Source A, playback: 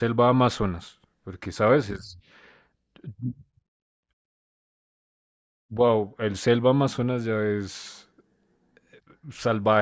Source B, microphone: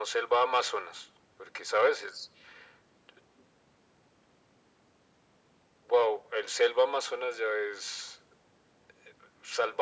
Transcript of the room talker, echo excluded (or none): none